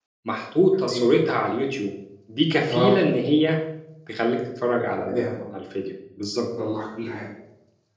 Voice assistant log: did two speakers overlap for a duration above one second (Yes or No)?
No